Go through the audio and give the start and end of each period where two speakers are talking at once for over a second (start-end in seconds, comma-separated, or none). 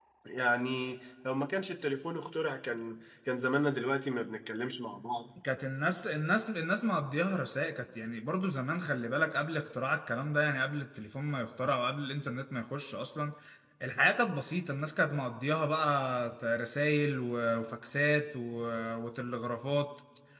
none